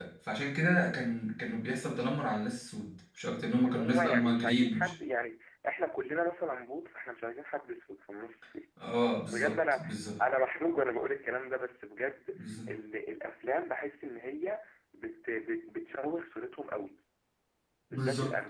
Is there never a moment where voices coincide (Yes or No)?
No